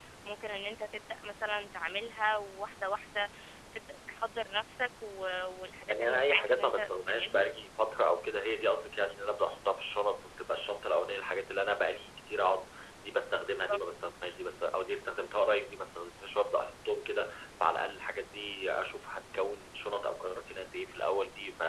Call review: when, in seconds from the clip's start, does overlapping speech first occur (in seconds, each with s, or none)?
5.9 s